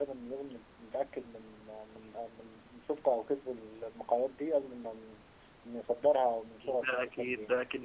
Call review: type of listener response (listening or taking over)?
taking over